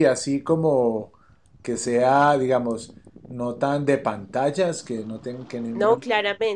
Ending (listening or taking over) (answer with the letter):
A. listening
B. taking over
B